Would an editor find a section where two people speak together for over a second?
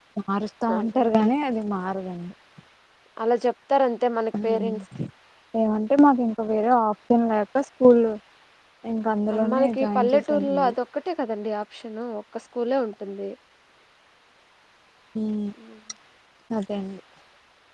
Yes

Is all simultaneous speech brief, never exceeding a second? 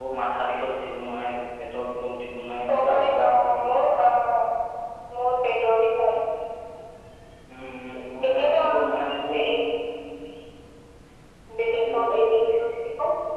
No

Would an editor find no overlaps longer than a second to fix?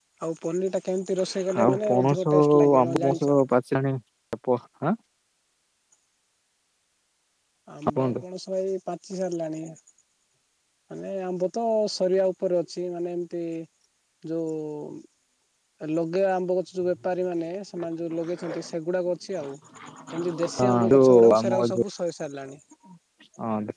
No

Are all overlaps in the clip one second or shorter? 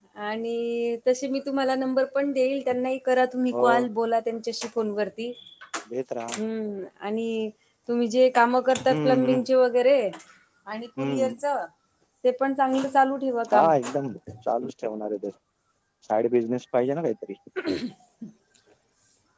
Yes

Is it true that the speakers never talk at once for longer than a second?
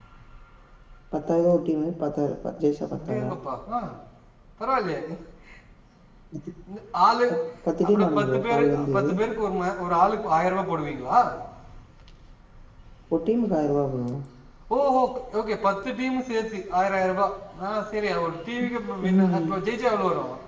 No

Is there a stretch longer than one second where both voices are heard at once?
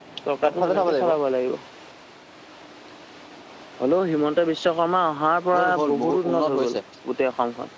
Yes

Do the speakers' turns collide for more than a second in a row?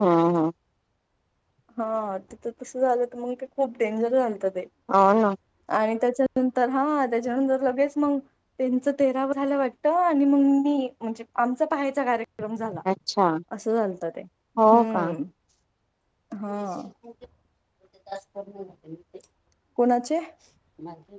No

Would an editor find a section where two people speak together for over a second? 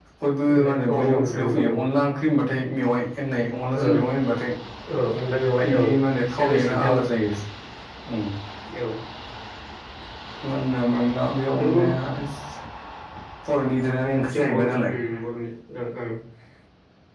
Yes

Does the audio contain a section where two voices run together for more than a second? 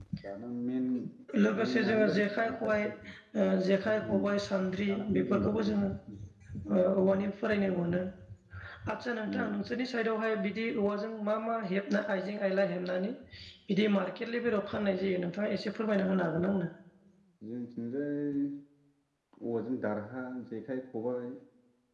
Yes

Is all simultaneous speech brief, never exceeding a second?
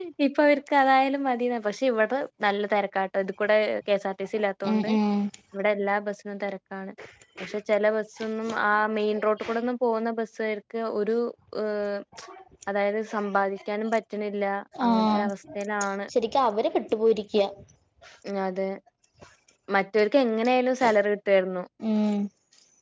Yes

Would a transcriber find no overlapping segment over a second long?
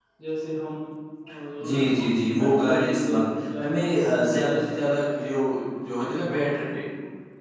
No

